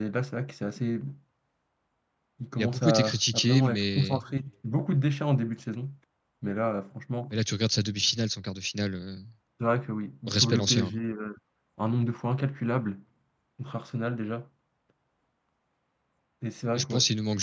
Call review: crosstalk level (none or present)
present